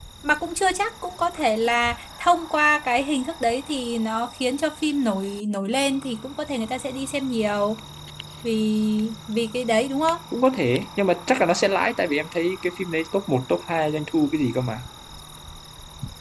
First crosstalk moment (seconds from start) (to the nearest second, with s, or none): none